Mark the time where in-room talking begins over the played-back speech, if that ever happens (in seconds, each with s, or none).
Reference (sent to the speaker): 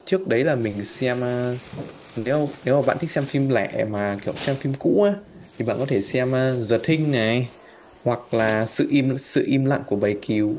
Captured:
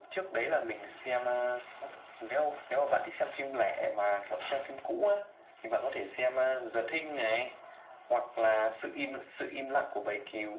none